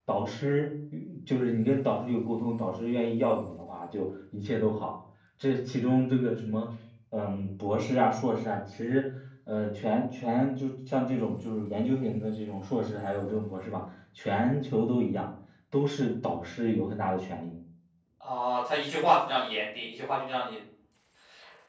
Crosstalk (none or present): none